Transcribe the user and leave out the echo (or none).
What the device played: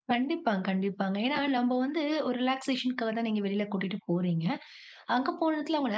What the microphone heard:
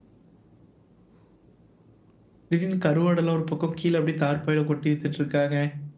திடீர்னு கருவாடெல்லாம் ஒரு பக்கம் கீழ அப்படியே தார்ப்பாயில கொட்டி வித்துட்டுருக்காங்க.